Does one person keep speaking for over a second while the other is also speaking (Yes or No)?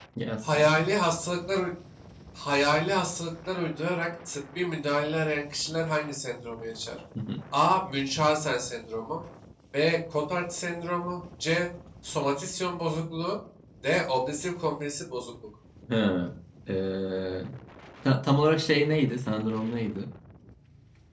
No